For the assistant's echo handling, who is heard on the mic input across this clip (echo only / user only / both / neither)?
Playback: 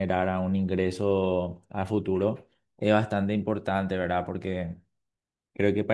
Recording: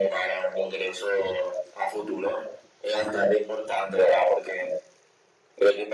echo only